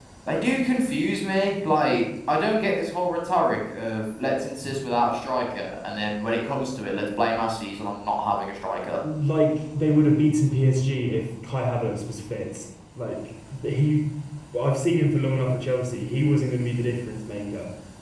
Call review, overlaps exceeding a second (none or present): none